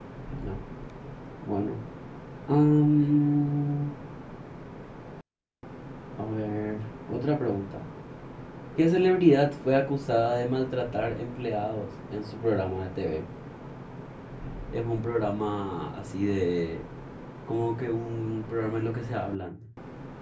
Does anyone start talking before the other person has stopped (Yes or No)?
No